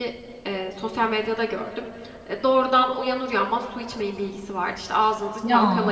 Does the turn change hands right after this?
No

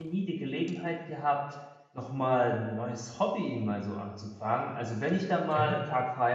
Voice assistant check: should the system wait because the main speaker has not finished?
Yes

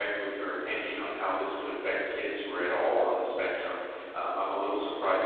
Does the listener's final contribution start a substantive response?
No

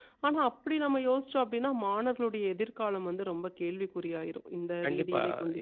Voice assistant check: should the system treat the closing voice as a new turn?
Yes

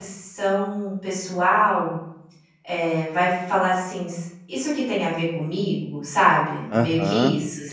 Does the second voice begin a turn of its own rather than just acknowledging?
Yes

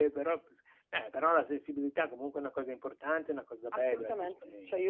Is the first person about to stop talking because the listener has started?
Yes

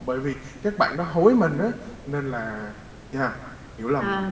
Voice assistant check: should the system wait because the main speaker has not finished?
No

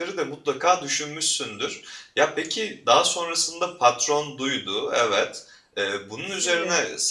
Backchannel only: Yes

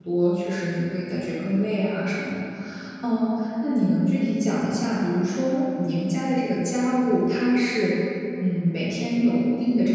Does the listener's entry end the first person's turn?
No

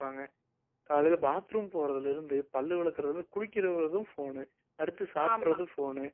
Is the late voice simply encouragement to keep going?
Yes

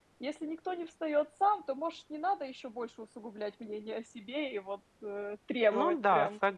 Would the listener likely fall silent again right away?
No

